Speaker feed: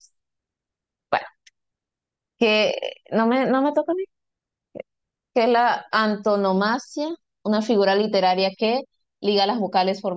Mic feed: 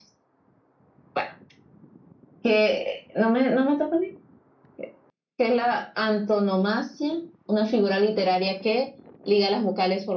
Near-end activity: none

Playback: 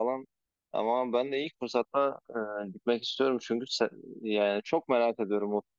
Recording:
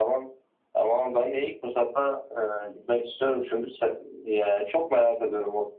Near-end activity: none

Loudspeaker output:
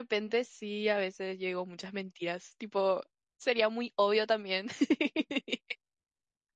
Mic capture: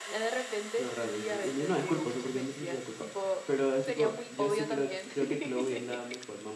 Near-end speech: present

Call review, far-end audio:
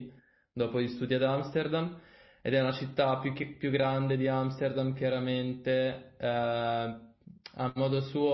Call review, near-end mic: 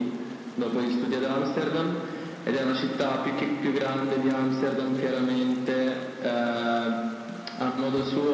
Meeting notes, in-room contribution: none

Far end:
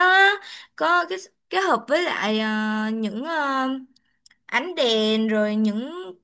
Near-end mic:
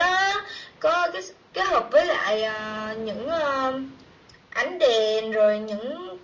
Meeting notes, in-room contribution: none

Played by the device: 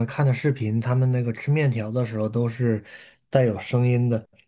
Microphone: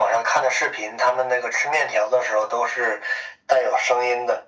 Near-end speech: none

